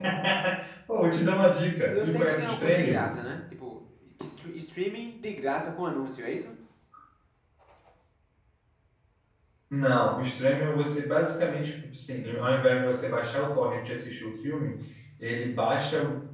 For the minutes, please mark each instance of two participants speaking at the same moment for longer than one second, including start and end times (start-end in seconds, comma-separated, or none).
1.8-3.1